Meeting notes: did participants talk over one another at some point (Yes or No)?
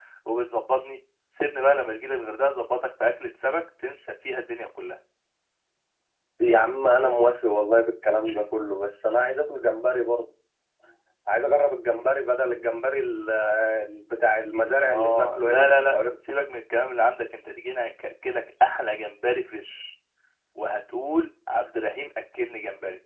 Yes